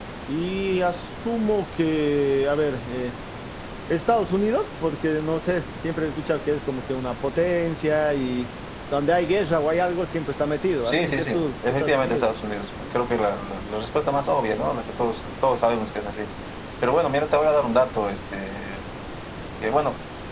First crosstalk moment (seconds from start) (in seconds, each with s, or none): 10.9 s